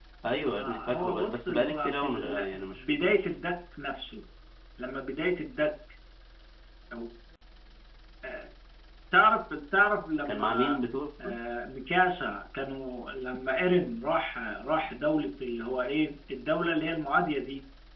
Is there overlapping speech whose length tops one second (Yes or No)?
Yes